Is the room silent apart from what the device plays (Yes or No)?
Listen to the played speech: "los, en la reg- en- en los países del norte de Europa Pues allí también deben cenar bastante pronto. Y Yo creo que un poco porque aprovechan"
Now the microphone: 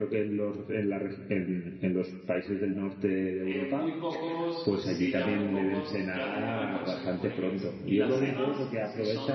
No